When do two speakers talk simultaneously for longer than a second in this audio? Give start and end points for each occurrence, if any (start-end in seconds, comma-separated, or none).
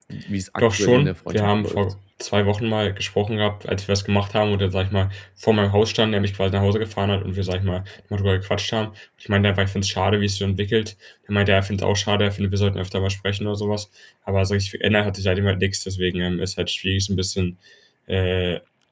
0.6-1.8